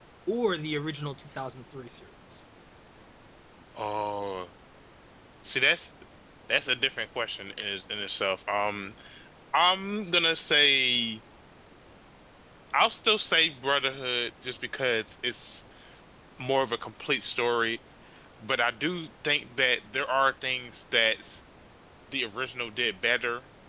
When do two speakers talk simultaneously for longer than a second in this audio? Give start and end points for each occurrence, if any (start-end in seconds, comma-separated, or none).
none